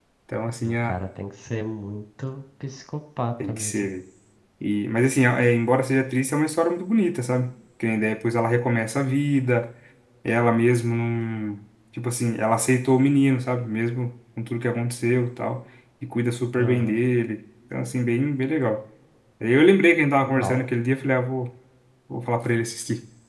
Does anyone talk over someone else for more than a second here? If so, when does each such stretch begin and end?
none

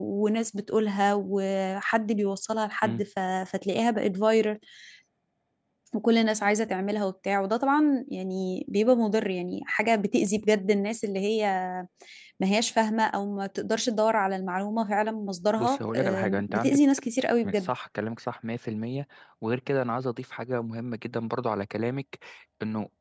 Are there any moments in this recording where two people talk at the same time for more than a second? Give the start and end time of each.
15.6-16.8

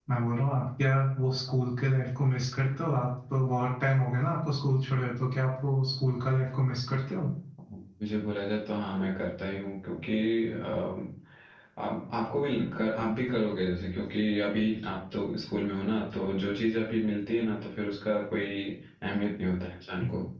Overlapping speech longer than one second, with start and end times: none

